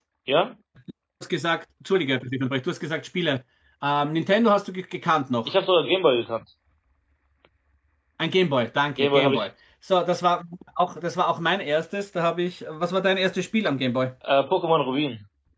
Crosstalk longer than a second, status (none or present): none